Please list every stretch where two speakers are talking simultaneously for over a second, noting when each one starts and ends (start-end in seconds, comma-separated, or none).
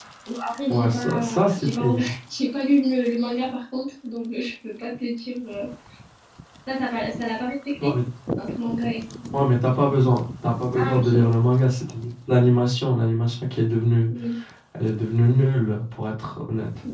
0.7-1.9